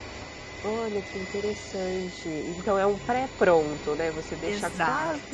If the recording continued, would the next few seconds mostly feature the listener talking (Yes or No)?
No